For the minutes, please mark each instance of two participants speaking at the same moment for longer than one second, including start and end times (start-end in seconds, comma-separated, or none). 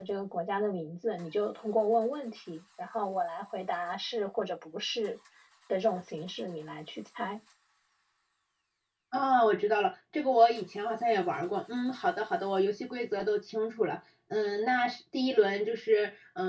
none